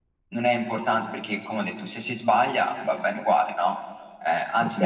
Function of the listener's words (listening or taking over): listening